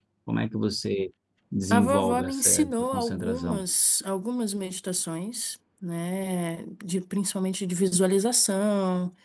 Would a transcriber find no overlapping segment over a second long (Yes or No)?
No